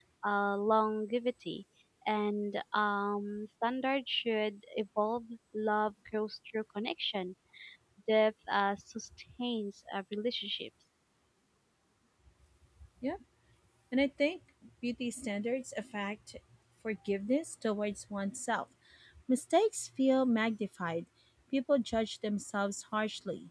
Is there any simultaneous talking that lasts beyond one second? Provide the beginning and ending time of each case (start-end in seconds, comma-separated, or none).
none